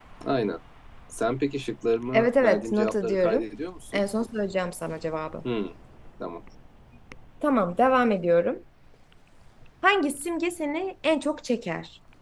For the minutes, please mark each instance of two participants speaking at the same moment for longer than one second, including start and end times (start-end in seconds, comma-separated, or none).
2.1-3.5